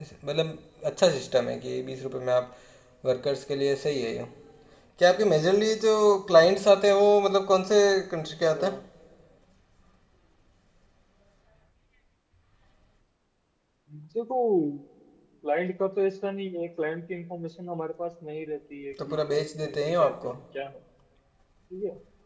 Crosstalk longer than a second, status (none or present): present